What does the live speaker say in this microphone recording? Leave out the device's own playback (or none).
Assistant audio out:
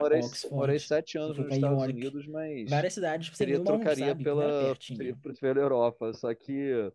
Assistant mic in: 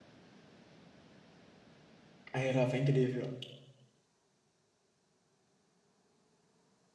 A Europa é incrível.